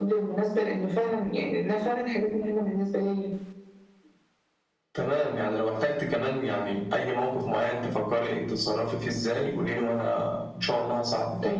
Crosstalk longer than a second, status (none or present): none